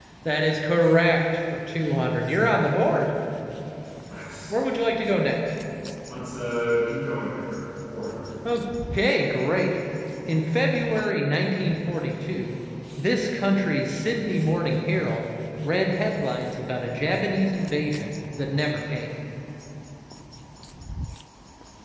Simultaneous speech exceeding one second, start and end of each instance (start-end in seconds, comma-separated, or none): none